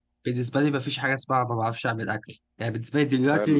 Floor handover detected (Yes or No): No